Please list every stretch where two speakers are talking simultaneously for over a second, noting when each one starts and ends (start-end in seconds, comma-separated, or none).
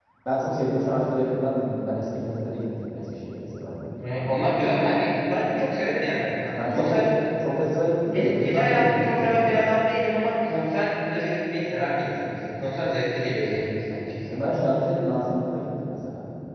8.1-9.6